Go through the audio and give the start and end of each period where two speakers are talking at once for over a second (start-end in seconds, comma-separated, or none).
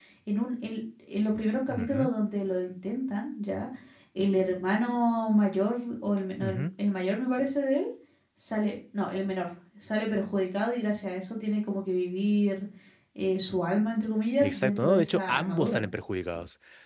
14.4-15.8